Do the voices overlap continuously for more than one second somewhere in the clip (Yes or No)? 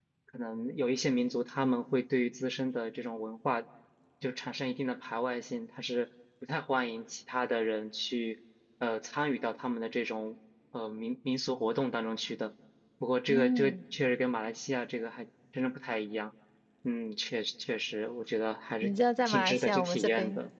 Yes